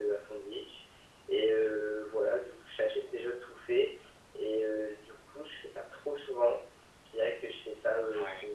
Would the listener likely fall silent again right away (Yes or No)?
Yes